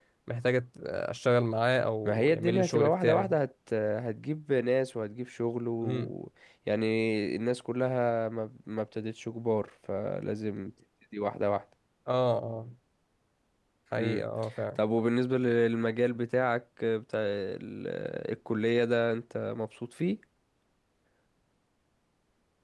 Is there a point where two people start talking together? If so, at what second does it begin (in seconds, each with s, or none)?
2.0 s